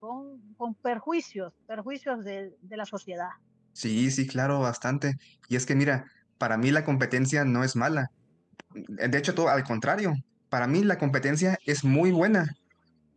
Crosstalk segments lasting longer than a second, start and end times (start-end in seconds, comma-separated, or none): none